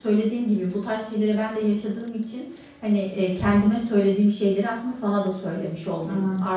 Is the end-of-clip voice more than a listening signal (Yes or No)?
No